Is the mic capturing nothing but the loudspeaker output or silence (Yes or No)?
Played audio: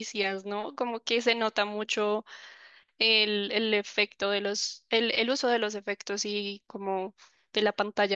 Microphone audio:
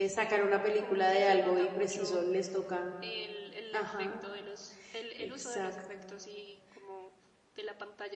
No